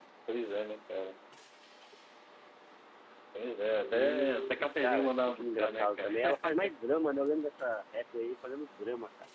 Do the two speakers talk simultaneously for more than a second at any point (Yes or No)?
Yes